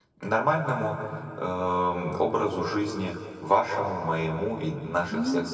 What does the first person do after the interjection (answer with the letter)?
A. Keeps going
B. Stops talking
A